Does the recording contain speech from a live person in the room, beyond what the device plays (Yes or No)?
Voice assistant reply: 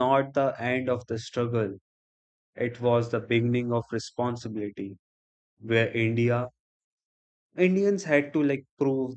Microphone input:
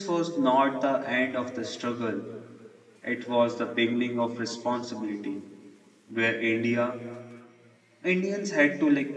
No